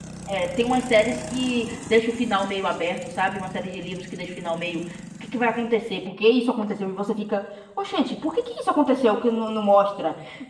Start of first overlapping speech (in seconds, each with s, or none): none